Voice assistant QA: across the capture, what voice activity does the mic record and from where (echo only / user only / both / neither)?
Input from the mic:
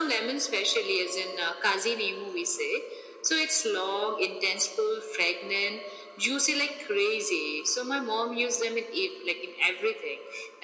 echo only